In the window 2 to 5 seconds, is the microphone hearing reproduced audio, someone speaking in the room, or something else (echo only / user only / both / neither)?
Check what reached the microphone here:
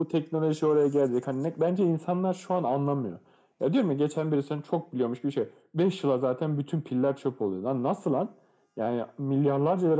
echo only